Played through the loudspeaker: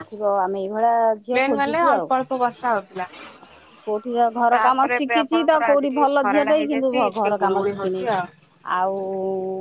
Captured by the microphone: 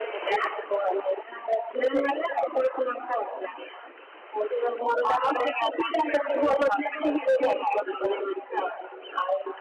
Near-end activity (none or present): none